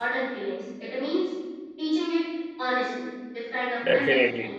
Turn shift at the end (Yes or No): No